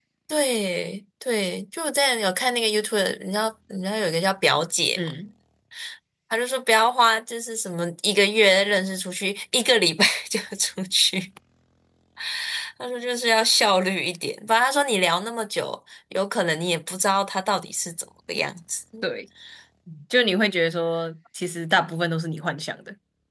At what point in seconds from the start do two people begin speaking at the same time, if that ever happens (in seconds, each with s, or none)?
none